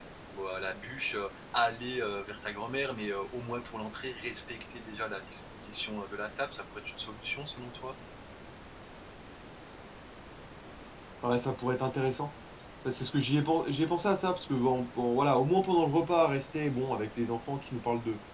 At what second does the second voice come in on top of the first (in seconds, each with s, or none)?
none